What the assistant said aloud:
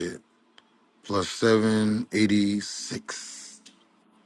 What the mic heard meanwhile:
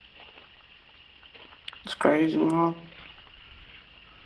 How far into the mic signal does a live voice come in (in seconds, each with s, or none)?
1.8 s